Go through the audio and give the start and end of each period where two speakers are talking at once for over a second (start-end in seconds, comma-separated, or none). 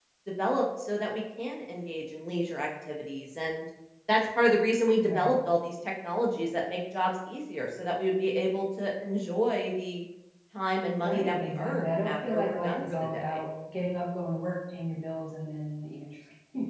11.0-13.4